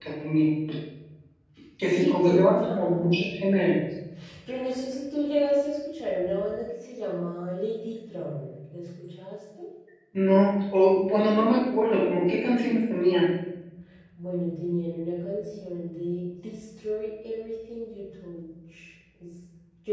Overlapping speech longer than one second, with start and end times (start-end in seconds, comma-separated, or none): 1.9-3.2